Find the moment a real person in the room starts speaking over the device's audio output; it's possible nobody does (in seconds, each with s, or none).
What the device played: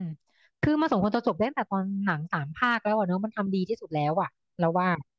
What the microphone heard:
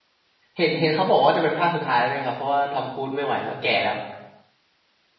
0.5 s